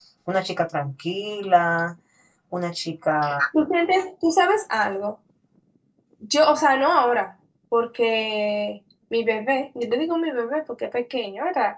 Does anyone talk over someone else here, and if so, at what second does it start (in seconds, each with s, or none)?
none